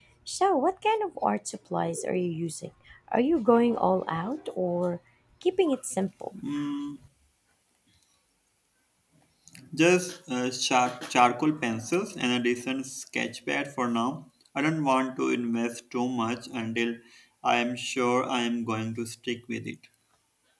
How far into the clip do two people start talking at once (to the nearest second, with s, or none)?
none